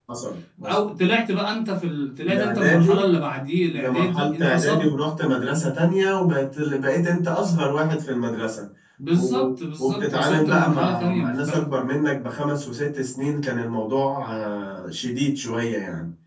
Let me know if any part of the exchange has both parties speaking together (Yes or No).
Yes